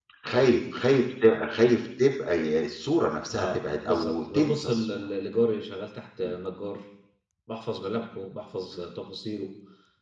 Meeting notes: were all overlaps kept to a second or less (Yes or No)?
No